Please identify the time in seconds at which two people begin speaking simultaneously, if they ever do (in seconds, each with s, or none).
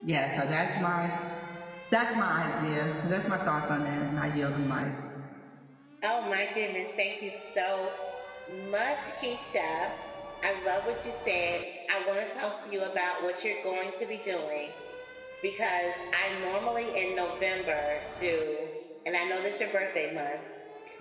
none